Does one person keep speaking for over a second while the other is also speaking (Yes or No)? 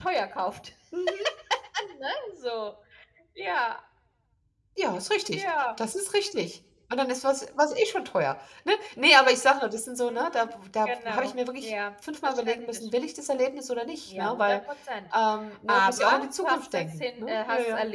Yes